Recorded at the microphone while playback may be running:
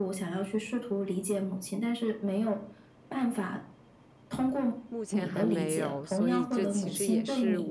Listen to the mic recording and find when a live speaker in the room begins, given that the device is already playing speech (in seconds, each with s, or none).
4.9 s